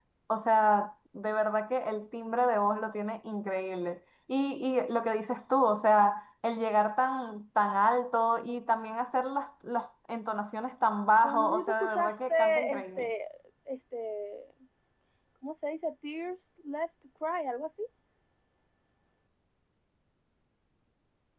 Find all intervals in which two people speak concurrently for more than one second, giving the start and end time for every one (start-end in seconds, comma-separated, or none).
11.2-13.1